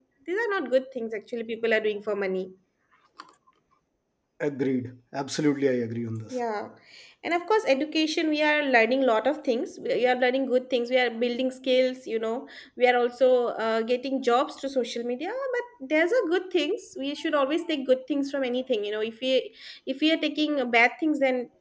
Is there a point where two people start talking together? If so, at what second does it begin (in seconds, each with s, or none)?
none